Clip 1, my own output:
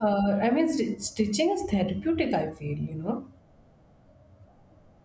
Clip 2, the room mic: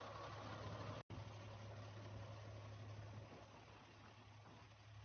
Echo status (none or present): none